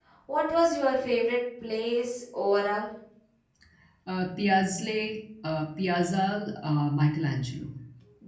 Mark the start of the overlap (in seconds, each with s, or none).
none